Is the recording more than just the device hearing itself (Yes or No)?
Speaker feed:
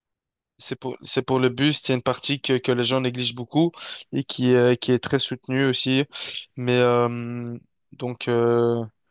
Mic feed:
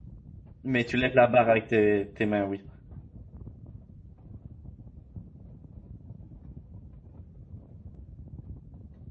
Yes